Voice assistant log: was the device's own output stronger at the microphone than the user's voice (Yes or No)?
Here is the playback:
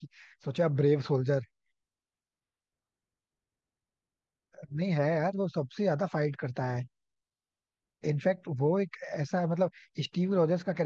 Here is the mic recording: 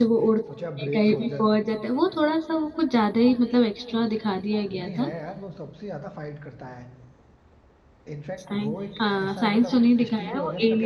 No